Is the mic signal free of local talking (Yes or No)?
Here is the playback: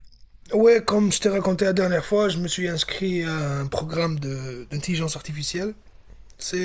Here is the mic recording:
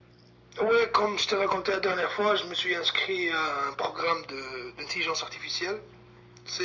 Yes